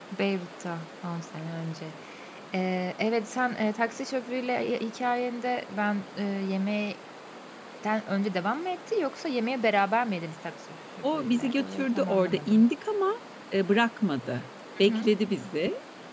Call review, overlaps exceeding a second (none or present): present